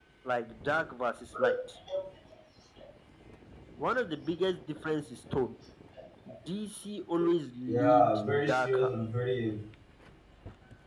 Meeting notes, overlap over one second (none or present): present